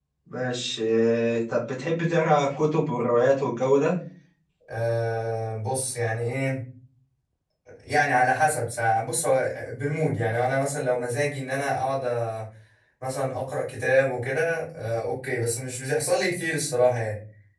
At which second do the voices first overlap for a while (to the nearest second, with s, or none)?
none